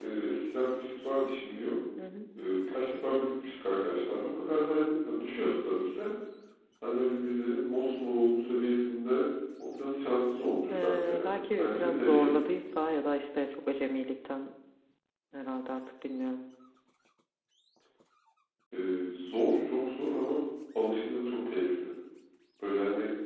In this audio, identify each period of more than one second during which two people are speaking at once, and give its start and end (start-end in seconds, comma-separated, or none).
10.7-12.3